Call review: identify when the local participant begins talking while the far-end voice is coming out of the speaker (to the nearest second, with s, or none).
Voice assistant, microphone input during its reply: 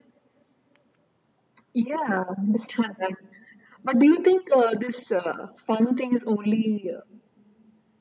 none